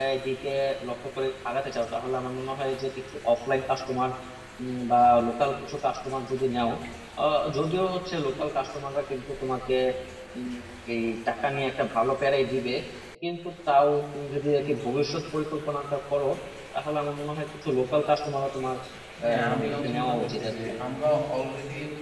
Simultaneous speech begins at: 19.2 s

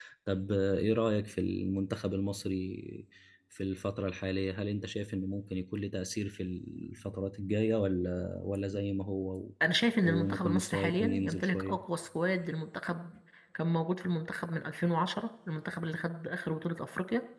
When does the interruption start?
10.0 s

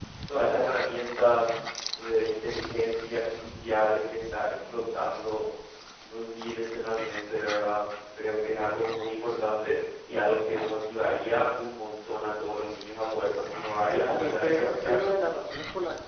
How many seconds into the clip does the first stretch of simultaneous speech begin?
13.9 s

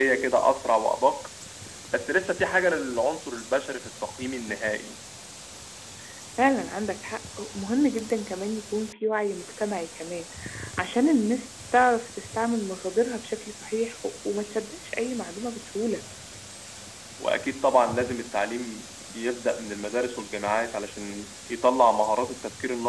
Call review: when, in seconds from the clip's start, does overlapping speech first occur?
none

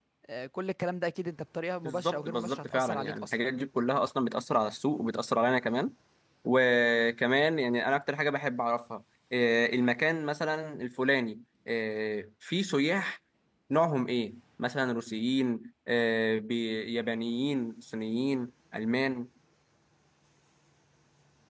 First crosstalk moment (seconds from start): 1.8 s

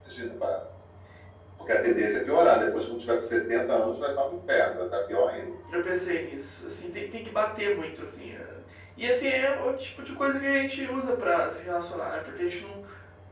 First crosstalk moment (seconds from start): none

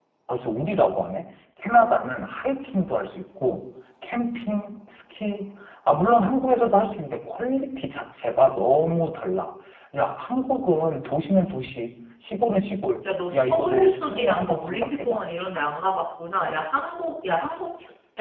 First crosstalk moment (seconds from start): 13.1 s

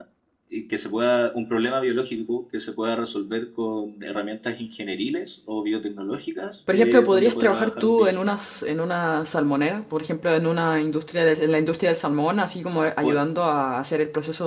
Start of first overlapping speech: 6.7 s

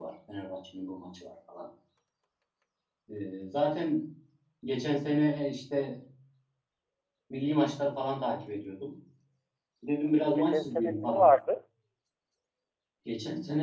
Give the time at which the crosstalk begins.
10.1 s

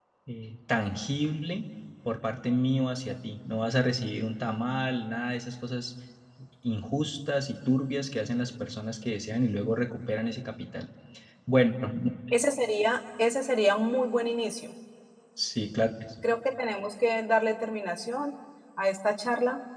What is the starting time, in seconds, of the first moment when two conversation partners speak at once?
none

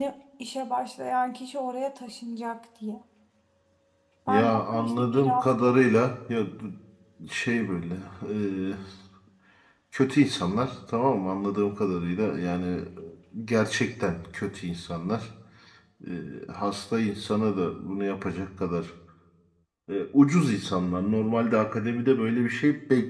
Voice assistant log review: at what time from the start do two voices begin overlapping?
4.3 s

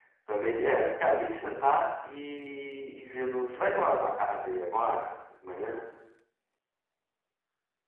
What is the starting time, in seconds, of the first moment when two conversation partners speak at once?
none

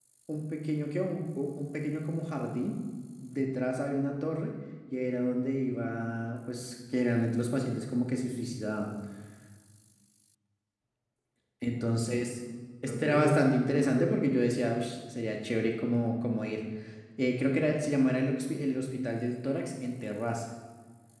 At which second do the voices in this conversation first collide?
12.9 s

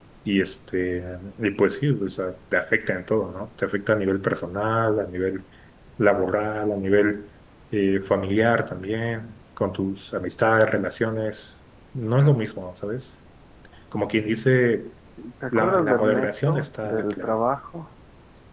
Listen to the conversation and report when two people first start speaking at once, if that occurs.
15.5 s

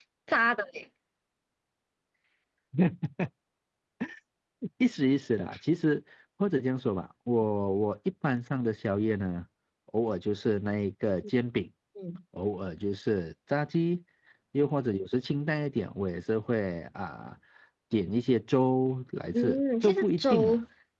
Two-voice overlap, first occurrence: 19.3 s

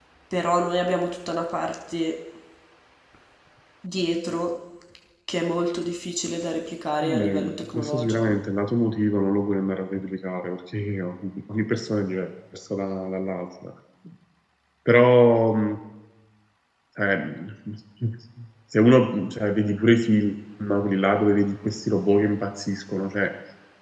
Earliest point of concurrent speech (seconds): 7.0 s

